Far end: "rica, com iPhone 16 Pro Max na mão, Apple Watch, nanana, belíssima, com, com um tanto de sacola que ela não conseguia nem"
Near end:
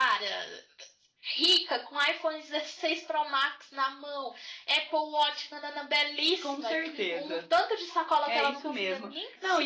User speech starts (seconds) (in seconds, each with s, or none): 6.4 s